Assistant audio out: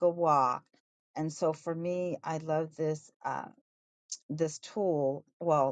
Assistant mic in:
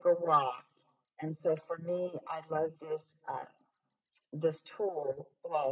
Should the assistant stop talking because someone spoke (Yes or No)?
No